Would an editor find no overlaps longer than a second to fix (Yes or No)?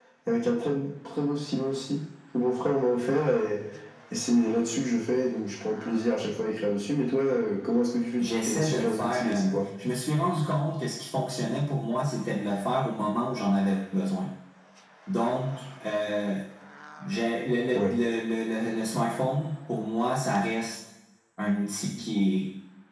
No